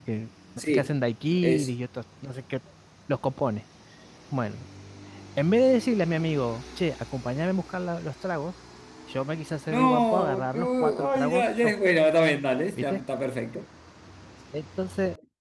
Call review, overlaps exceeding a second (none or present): present